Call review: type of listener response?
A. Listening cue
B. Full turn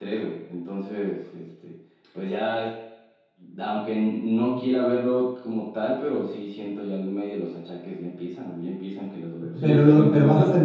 B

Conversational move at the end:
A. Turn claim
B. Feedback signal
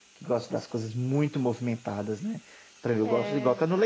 B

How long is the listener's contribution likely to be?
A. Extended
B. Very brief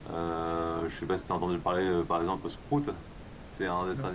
B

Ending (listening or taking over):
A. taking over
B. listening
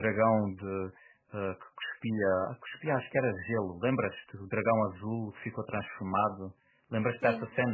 A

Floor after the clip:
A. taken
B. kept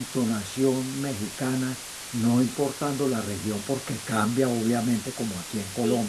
B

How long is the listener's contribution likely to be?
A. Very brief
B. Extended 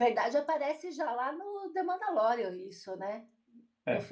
A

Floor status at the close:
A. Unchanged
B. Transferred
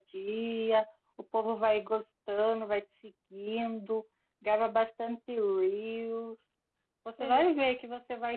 A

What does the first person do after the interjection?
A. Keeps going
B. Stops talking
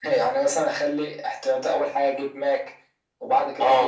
B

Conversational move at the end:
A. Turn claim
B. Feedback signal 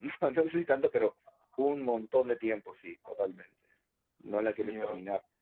B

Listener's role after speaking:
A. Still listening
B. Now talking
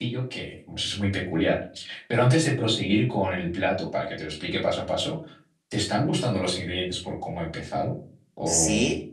B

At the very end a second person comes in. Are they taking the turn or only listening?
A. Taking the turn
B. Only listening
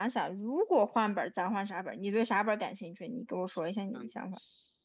A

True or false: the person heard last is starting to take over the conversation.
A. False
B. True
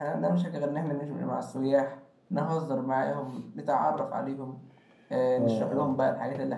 A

